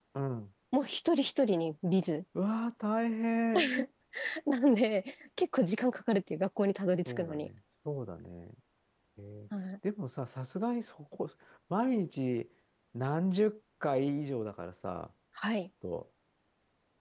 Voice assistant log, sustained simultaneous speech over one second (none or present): none